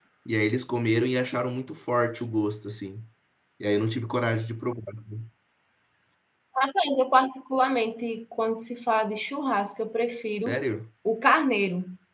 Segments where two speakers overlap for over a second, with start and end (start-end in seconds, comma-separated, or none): none